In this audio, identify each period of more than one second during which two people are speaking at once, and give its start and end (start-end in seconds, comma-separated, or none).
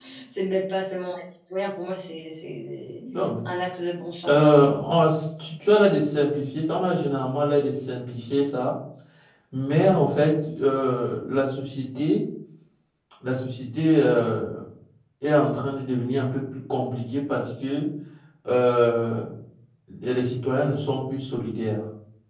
none